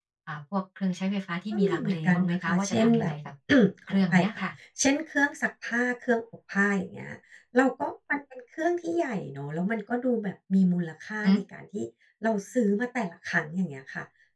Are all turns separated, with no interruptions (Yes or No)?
No